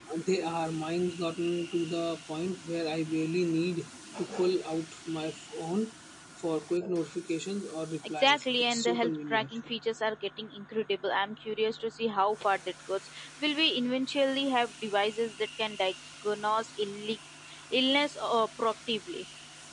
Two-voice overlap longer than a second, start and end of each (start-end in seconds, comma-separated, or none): 8.2-9.6